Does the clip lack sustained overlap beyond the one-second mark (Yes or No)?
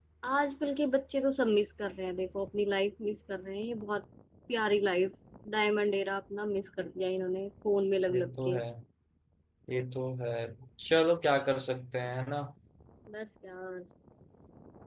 Yes